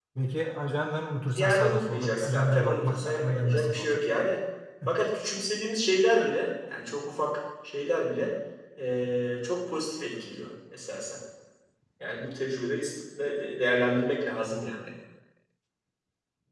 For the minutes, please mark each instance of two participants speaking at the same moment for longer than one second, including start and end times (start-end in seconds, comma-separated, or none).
1.4-4.0